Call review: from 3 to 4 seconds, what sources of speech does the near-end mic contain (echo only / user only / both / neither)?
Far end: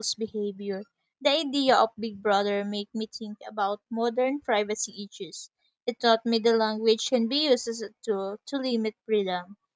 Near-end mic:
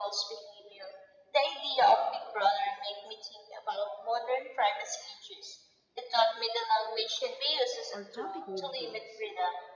echo only